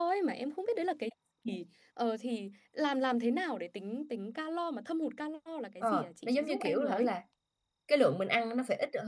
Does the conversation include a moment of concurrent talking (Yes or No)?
Yes